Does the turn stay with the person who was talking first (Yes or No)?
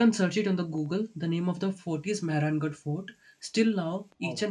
Yes